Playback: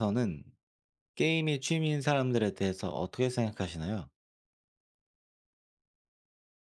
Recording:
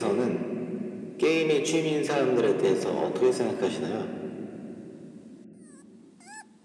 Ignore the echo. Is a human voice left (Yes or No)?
No